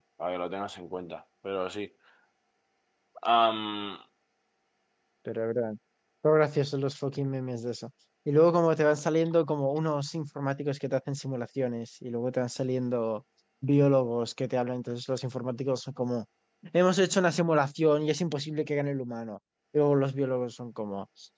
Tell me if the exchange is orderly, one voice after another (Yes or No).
Yes